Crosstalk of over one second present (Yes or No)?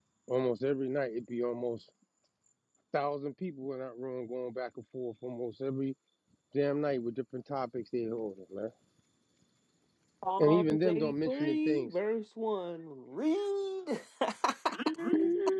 Yes